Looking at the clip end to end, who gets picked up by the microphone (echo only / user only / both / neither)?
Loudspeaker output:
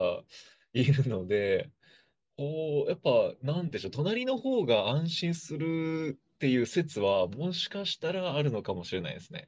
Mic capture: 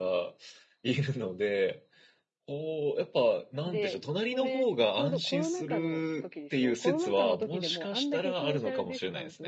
both